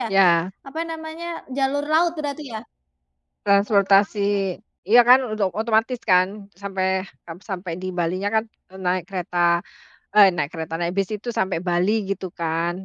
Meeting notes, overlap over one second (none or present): none